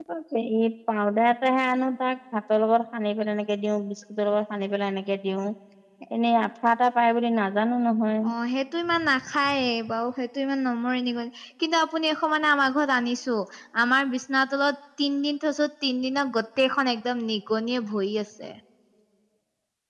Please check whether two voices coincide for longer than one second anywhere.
No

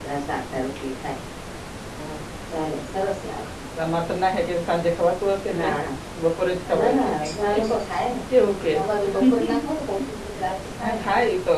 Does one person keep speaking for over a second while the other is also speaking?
No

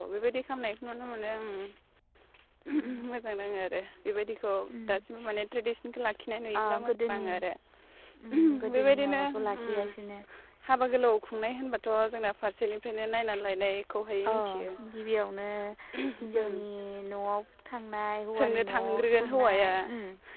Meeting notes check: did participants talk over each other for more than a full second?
Yes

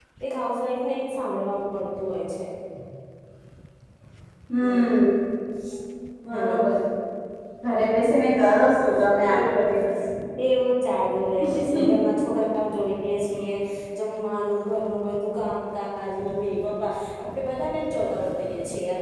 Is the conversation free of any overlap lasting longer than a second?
Yes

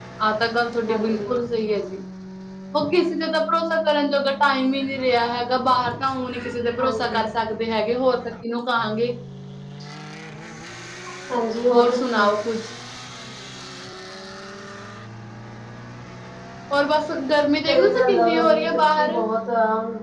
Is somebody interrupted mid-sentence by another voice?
Yes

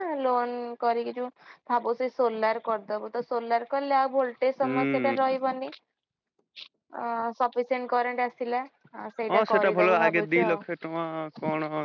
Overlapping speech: Yes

